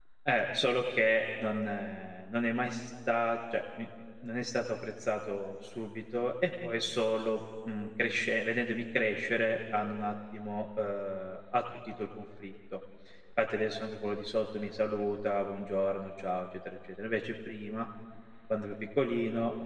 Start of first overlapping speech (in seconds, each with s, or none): none